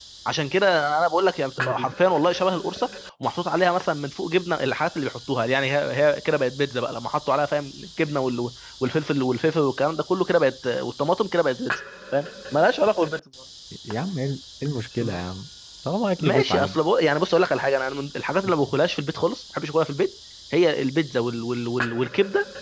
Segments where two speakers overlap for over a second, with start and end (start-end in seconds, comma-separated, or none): none